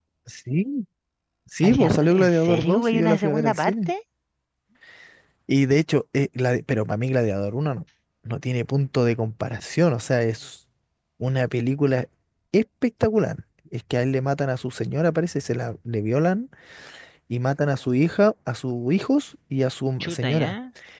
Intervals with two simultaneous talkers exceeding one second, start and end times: 1.6-3.9

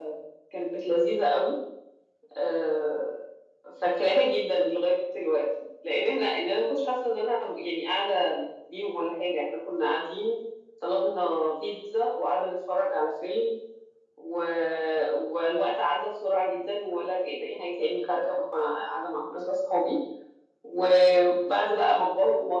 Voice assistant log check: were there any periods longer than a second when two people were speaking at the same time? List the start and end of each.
none

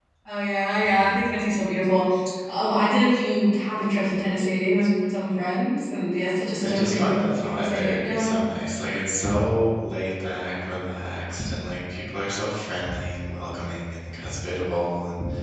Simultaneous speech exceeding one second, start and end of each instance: 6.6-8.3

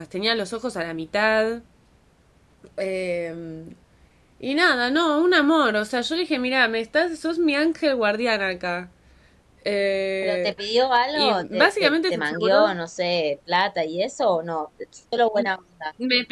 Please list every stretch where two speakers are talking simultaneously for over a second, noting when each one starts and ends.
11.2-12.7

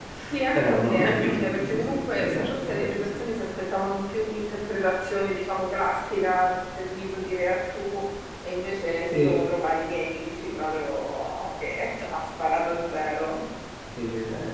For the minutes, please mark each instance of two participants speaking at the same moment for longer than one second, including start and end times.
0.5-3.0

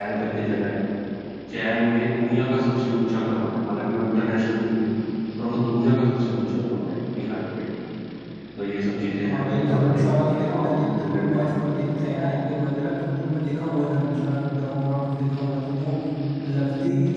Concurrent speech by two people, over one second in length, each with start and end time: 9.2-11.8

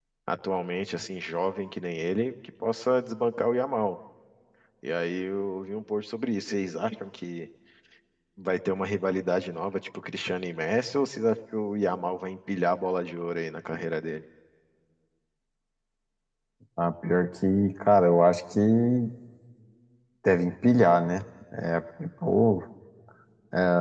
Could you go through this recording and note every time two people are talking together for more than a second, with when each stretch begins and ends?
none

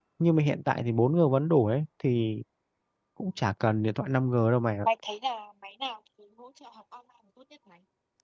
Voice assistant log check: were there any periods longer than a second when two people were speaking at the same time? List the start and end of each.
none

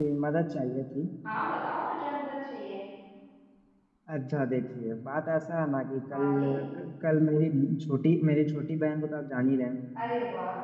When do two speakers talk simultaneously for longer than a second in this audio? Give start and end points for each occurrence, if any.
none

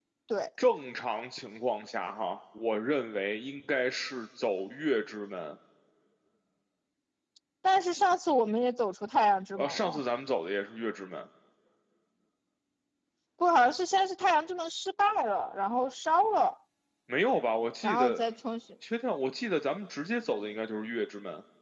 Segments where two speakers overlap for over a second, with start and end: none

